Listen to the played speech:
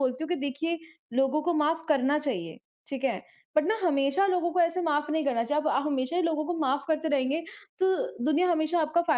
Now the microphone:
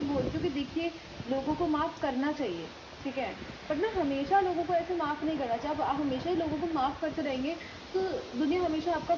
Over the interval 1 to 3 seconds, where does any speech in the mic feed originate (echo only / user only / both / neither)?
echo only